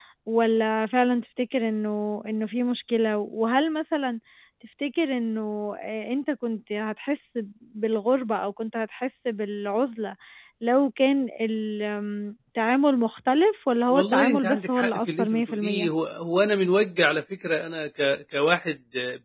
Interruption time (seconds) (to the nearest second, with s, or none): 14 s